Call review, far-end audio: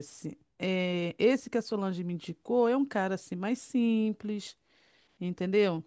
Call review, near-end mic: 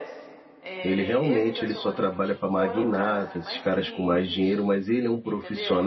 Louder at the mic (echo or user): user